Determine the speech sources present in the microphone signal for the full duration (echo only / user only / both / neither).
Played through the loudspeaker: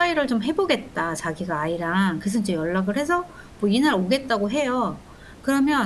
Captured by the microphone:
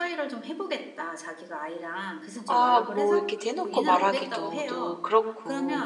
both